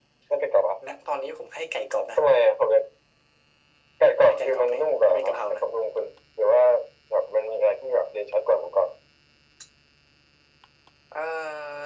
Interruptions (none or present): present